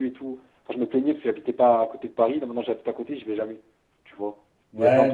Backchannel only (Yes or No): No